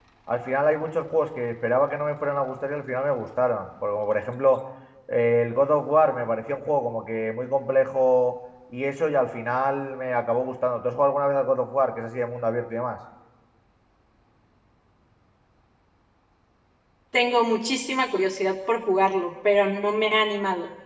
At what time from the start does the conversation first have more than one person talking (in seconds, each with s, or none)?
none